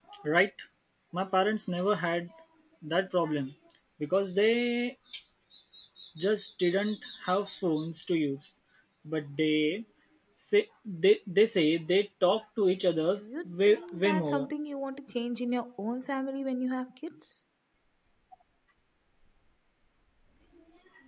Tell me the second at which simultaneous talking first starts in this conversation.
13 s

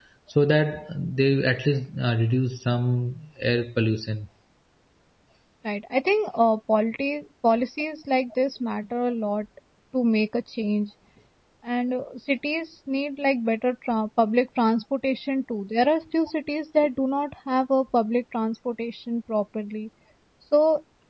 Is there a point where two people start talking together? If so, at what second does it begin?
none

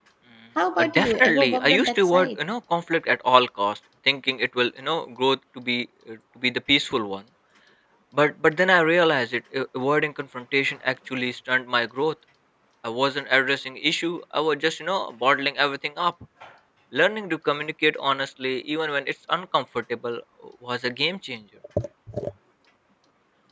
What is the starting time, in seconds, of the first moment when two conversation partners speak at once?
1 s

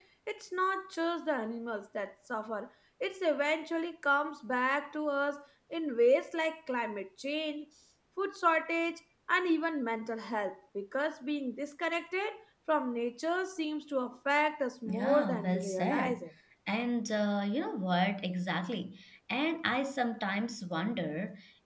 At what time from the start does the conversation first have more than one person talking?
15 s

